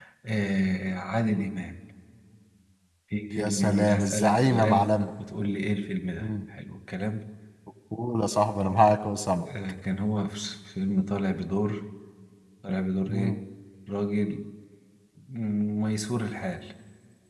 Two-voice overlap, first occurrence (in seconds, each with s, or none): 3.3 s